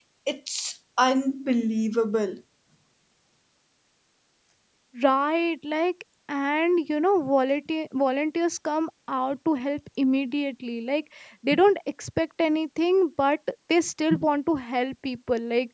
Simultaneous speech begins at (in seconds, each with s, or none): none